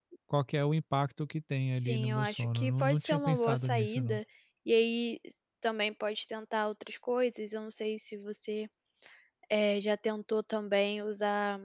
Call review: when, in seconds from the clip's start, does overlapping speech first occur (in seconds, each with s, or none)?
1.8 s